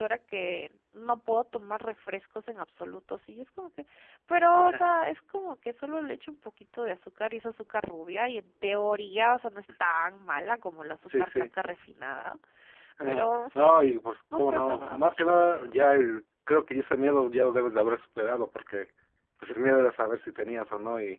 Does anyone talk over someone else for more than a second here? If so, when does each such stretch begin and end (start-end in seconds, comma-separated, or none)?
14.3-15.7